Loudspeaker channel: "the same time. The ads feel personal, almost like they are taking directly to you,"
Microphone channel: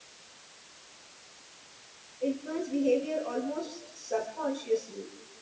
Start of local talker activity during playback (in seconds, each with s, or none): 2.2 s